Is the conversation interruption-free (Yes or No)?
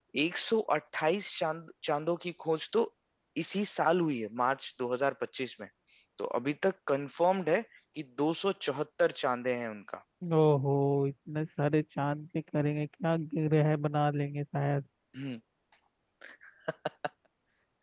Yes